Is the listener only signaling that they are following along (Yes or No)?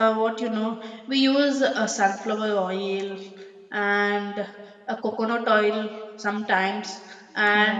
Yes